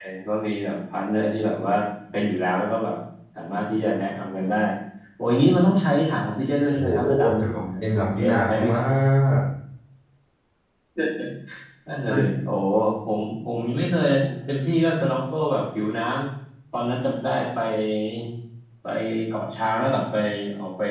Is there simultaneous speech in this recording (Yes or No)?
Yes